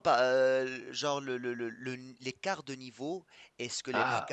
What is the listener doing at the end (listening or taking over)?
listening